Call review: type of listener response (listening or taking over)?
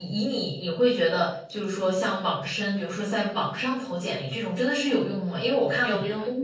listening